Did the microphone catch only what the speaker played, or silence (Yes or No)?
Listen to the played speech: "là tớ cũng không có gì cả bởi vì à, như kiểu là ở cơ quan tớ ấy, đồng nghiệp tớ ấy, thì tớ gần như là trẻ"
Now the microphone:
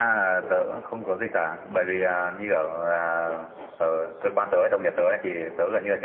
Yes